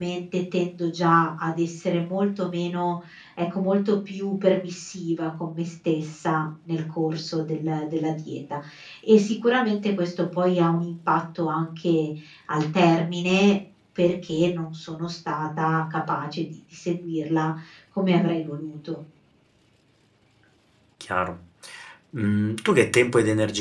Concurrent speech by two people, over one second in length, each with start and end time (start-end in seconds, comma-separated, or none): none